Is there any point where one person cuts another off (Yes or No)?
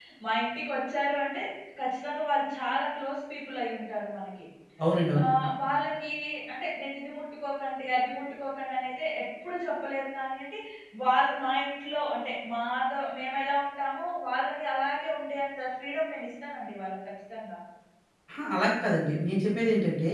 No